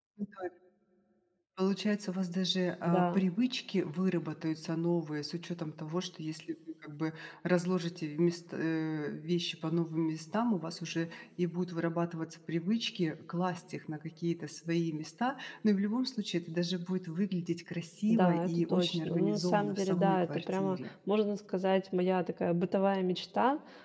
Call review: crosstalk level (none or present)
present